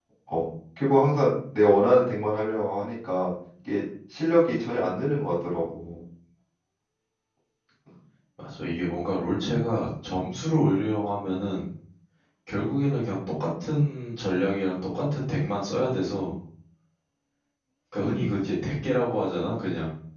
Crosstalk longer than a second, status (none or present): none